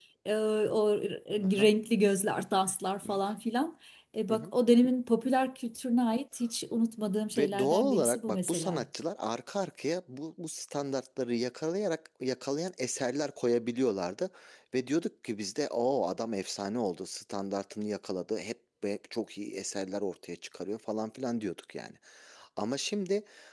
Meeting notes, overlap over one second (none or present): present